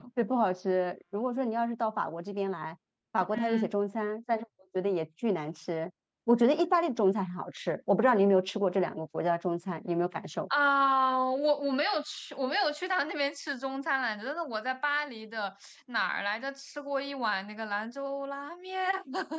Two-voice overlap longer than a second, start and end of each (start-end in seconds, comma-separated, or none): none